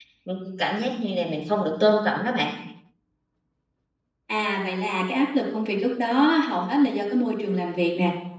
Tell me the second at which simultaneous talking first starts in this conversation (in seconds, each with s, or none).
none